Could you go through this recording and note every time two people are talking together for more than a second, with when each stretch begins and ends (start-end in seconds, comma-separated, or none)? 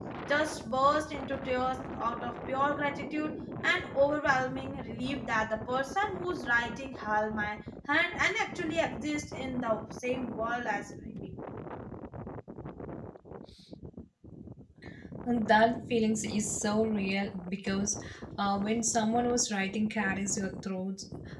none